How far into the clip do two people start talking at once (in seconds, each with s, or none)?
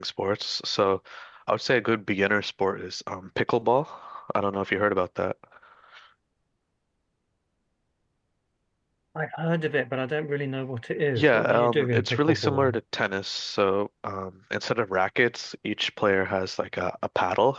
11.2 s